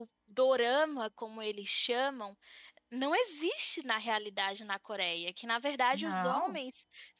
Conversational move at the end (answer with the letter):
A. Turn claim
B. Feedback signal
B